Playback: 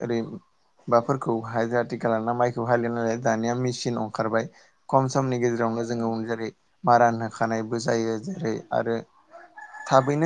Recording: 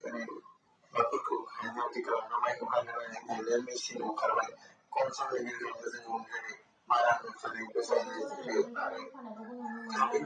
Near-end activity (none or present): present